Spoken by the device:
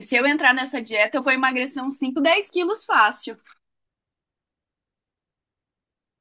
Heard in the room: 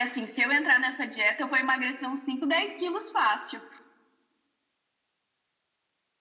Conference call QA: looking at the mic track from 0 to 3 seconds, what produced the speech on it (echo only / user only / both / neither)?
echo only